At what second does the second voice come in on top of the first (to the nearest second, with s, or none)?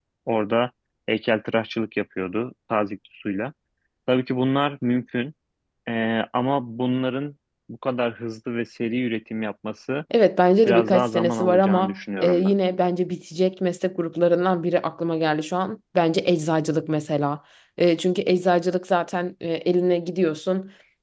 11 s